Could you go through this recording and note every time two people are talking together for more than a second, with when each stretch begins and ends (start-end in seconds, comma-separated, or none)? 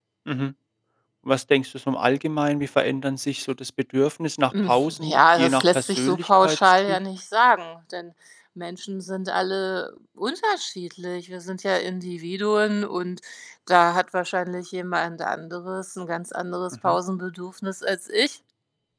4.7-7.0